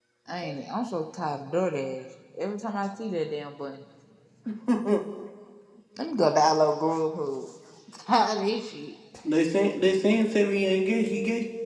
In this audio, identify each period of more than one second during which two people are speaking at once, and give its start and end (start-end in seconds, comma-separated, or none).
none